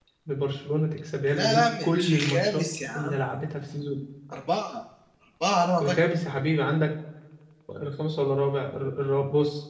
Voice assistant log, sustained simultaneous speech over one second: present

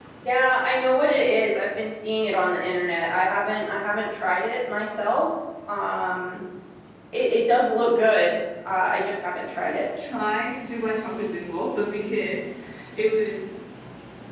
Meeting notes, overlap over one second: none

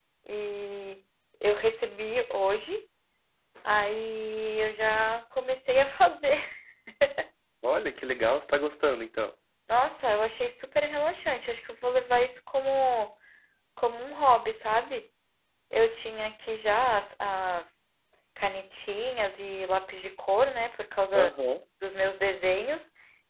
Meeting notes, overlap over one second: none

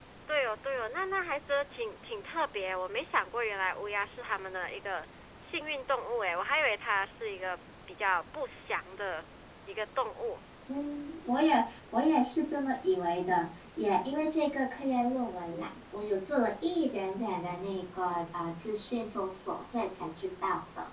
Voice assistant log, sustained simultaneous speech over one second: none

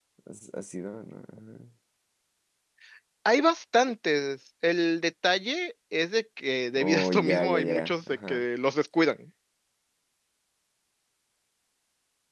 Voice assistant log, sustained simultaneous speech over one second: present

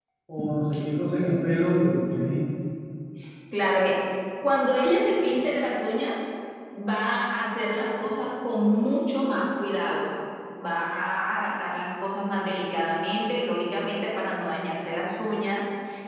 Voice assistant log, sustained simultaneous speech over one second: none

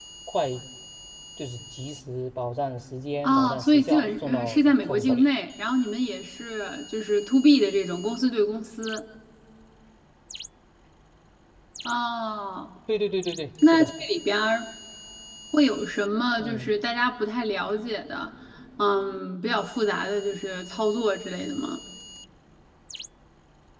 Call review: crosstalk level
present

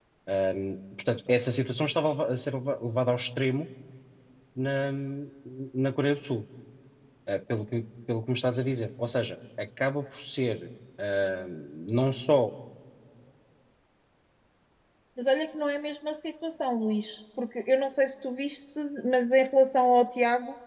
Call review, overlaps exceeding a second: none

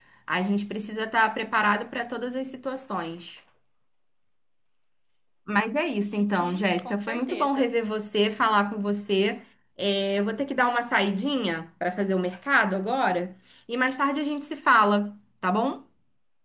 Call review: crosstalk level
present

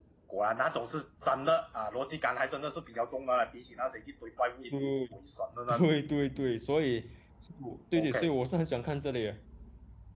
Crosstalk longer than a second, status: none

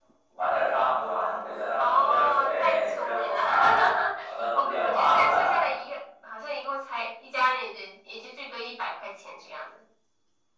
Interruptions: present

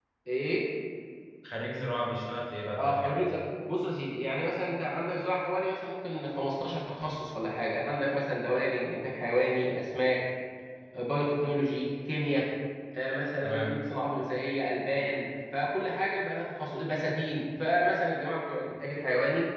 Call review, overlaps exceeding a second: none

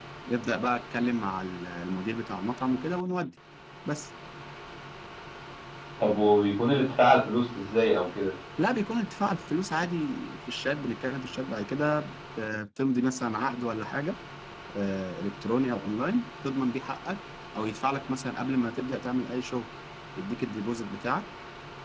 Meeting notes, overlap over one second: none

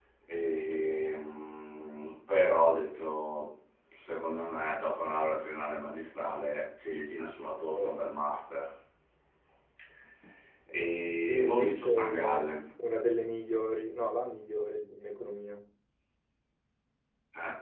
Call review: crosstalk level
present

